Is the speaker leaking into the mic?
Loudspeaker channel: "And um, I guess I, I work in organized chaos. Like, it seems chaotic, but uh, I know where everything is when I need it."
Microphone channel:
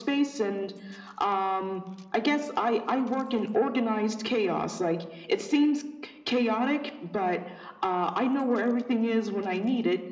Yes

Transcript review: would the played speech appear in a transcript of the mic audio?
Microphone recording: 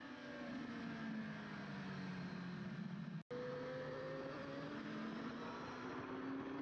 No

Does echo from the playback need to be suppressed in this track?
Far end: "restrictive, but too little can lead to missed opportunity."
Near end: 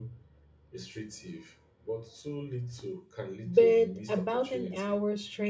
Yes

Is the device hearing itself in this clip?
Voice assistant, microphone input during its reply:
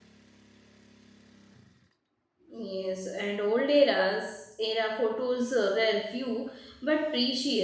No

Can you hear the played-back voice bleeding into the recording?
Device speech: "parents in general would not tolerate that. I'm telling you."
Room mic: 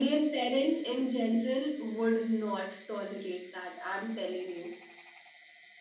Yes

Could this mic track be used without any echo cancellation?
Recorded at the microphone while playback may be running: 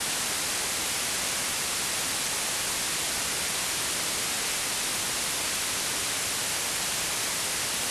Yes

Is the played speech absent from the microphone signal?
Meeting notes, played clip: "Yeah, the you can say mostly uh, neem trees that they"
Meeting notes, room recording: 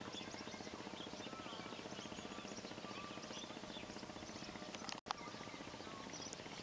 Yes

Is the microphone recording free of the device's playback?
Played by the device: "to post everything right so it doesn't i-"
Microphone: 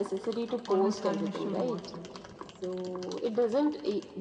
No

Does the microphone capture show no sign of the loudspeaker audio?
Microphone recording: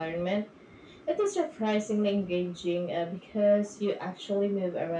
No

